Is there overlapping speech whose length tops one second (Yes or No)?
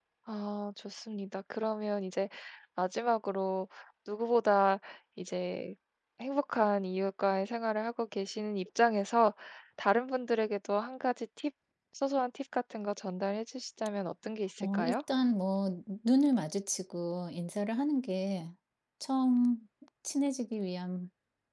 No